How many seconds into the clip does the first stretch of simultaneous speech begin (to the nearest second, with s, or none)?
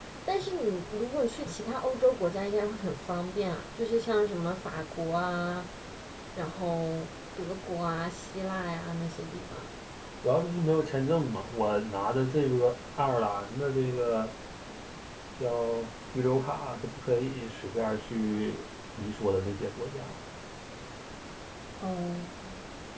none